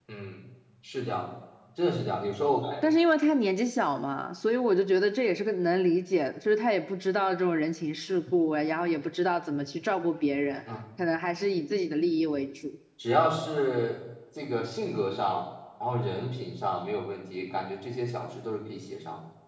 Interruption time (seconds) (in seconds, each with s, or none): none